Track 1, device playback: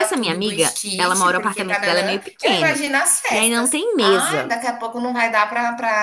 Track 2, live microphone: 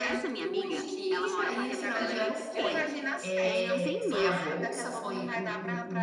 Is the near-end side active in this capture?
Yes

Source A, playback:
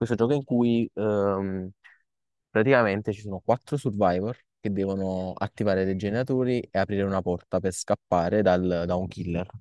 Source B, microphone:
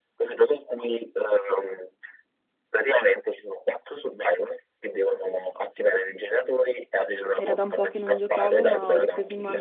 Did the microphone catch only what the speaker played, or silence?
No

